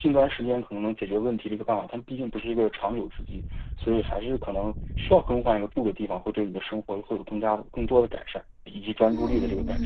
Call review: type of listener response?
taking over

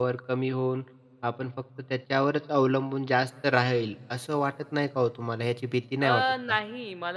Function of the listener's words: taking over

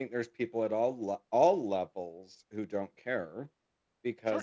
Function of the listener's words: listening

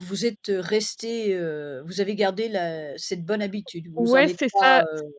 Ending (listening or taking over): taking over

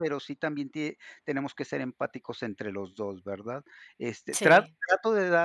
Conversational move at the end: listening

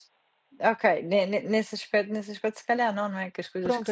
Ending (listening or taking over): taking over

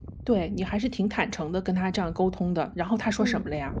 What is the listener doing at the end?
taking over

